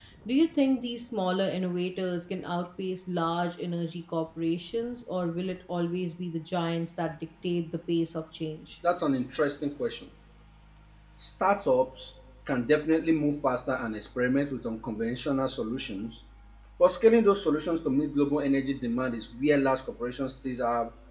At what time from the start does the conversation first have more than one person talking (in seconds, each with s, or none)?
none